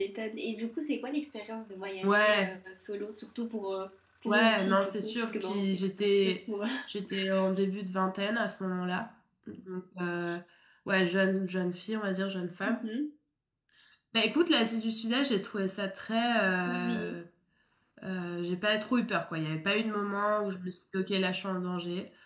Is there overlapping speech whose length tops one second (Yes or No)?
Yes